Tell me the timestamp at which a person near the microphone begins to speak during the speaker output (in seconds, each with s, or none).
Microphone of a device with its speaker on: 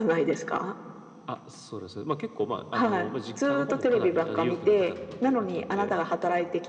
none